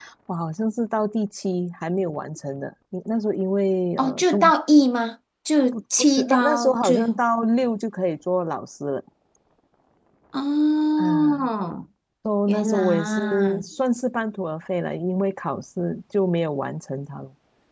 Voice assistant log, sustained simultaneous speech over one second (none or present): present